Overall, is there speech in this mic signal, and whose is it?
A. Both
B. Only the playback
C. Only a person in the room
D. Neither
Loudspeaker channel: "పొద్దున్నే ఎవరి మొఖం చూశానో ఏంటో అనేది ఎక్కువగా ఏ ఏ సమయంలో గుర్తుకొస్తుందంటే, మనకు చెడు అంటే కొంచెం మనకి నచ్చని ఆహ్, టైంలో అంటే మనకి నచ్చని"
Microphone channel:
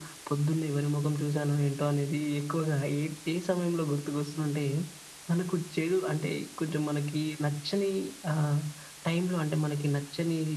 B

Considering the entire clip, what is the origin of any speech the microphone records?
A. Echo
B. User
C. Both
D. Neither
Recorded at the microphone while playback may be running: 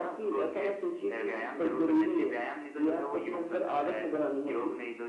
A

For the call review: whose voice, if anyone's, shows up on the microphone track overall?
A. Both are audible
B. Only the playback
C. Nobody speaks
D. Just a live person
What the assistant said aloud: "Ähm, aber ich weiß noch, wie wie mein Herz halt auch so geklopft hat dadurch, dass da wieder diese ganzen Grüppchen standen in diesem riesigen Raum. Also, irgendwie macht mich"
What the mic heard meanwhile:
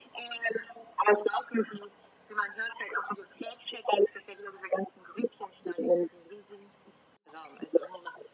B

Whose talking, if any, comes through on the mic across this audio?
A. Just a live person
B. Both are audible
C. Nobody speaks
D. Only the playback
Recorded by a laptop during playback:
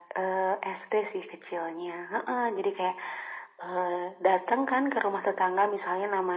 D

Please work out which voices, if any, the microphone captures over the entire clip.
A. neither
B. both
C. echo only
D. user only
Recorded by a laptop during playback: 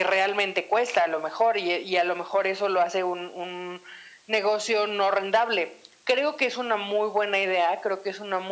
C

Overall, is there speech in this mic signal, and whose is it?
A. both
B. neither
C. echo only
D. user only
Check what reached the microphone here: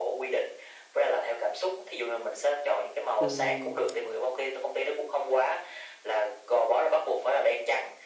A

